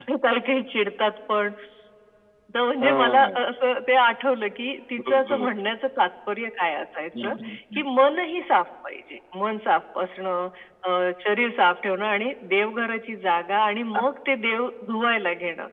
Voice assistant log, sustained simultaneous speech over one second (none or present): none